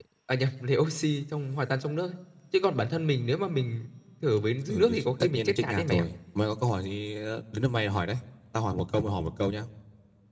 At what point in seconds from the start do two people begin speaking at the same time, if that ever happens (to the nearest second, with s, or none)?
5 s